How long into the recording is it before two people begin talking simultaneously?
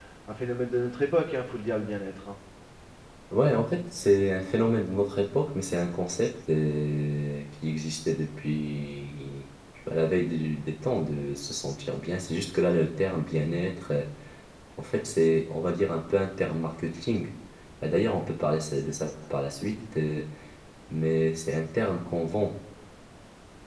none

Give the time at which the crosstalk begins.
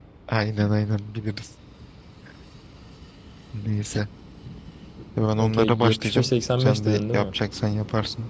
5.4 s

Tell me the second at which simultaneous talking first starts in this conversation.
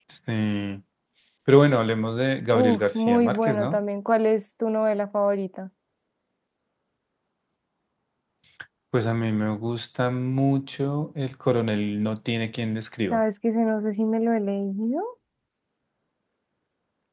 2.5 s

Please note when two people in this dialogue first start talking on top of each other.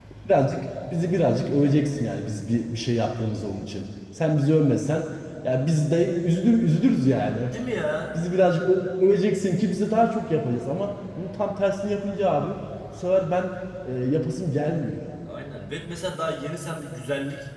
none

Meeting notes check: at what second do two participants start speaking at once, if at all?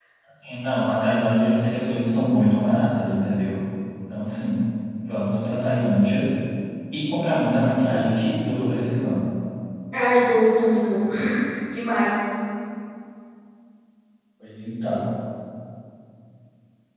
none

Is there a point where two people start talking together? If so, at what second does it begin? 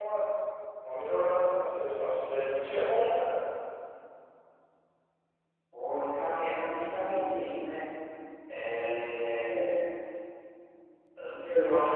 none

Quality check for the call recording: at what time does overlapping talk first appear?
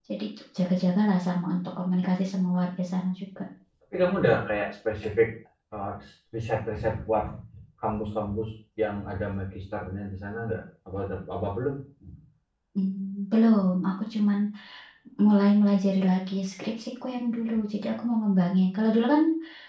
none

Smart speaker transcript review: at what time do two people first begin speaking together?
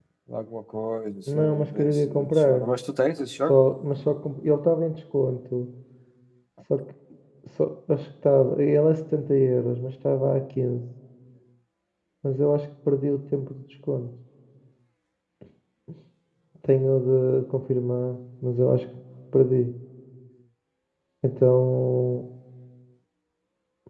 1.3 s

